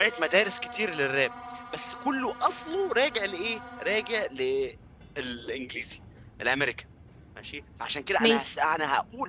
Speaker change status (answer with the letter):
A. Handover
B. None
B